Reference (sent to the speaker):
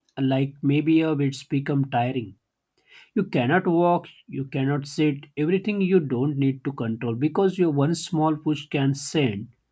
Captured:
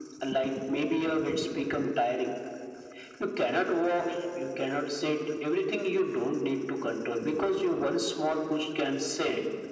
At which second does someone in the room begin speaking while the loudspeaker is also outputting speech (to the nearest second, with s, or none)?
none